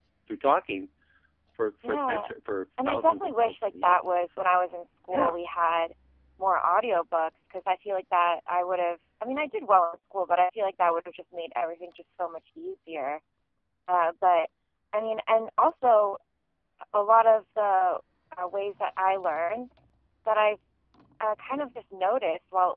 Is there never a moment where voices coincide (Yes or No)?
No